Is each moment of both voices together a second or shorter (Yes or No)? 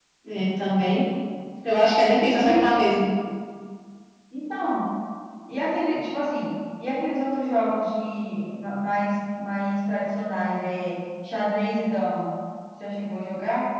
Yes